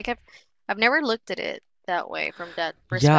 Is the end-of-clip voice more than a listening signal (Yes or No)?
Yes